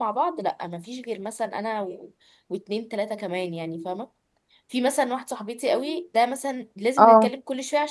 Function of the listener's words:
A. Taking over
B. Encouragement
B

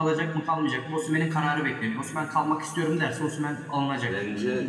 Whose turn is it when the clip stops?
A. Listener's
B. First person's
A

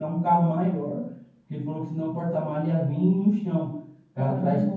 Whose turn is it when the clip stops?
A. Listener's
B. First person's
B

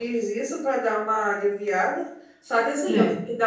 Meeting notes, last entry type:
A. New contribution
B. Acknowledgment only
B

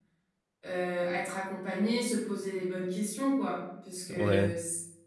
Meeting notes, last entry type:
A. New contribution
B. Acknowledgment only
B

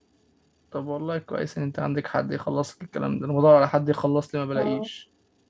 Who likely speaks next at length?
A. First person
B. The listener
A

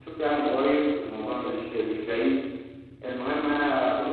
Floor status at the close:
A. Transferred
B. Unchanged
B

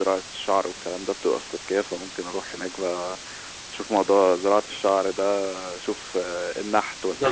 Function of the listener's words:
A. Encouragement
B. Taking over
B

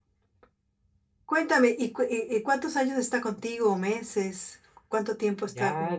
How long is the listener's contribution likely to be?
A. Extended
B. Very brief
A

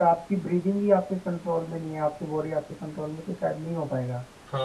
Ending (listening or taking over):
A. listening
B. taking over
B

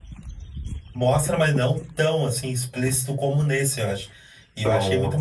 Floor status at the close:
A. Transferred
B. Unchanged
B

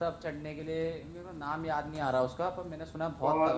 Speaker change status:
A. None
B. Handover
B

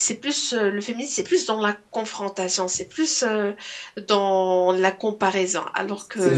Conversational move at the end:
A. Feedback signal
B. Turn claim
B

